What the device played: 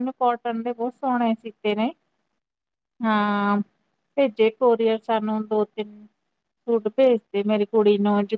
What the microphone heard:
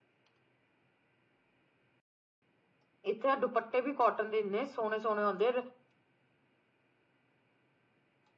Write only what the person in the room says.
ਇੱਥੇ ਦੁਪੱਟੇ ਵੀ ਕੌਟਨ ਦੇ, ਇੰਨੇ ਸੋਹਣੇ-ਸੋਹਣੇ ਹੁੰਦੇ

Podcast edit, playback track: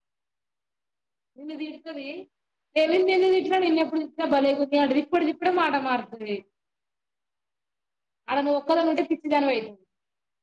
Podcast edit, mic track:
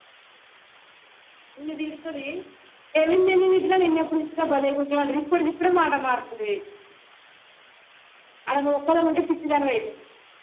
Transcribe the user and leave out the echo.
none

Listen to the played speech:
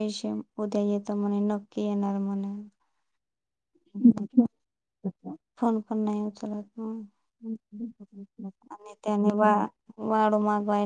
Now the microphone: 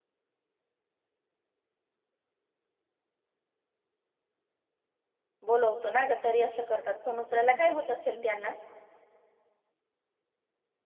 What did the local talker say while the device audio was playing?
बोलवतो ना ग तरी असं. करतात फोन उचरायला काय होत असेल त्यांना.

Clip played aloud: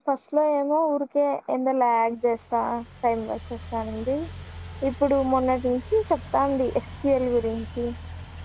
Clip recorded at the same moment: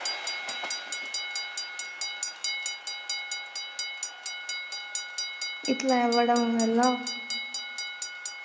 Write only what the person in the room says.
ఇట్లా అవ్వడం వల్ల

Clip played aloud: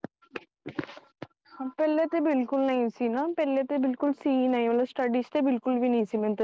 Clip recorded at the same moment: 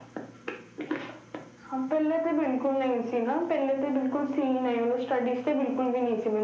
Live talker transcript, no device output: none

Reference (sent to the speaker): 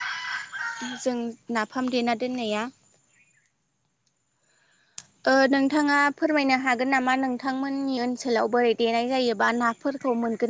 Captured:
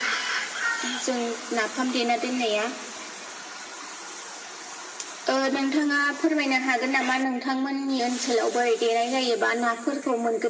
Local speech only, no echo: none

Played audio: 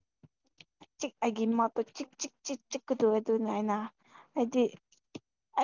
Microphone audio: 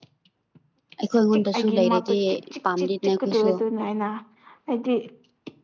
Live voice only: ꯑꯩꯈꯣꯏ ꯑꯩꯉꯣꯟꯗꯁꯨ ꯂꯩꯔꯗꯤ ꯄꯥꯝꯗꯦꯅꯦ ꯑꯩꯈꯣꯏꯁꯨ

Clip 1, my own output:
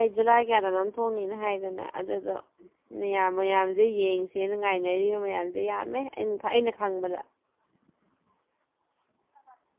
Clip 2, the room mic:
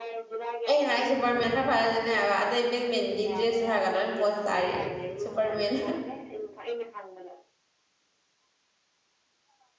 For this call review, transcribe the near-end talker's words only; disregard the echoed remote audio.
ꯑꯩꯅ ꯍꯥꯏ ꯁꯨꯄꯔ ꯃꯦꯟ ꯈꯥ ꯐꯗꯨꯅꯤ ꯍꯥꯏꯕ ꯑꯇꯩ ꯕꯦꯠ ꯃꯦꯟꯗꯤ ꯗ꯭ꯔꯦꯁꯁꯨ ꯍꯥꯏꯔꯒ ꯄꯣ ꯇꯥꯔꯦ ꯁꯨꯄꯔꯃꯦꯟ

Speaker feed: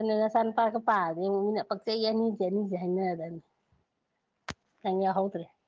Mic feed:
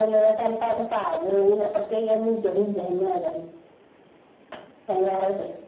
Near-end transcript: none

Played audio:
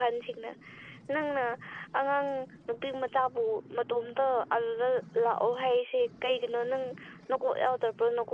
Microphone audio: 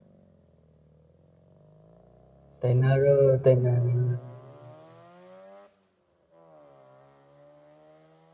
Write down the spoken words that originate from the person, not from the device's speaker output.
ꯇꯥꯏꯅꯔꯣ ꯇꯥꯏꯅꯔꯣ

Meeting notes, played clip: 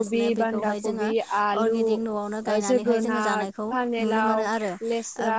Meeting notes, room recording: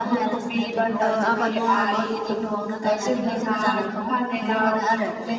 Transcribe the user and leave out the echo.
ओ आबाद मावनानै गोब

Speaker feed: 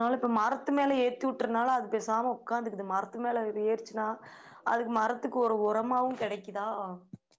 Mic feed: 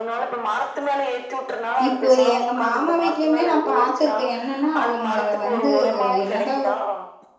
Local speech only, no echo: இப்போ எங்க மாமா வீட்லயுமே நா பாத்துருக்கே என்னன்னா அவங்க வந் து என்னதா

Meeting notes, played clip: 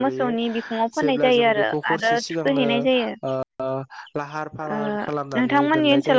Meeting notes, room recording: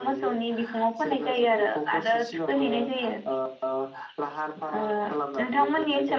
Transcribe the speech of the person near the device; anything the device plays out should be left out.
none

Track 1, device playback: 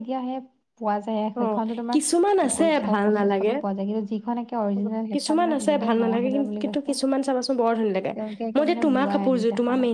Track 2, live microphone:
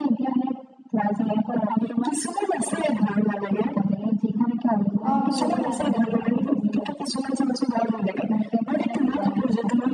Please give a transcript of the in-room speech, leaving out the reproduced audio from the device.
অ মোৰ এযোৰ আছে আছে

